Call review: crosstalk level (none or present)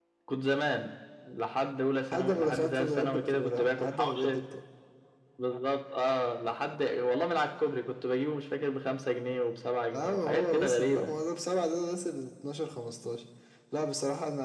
present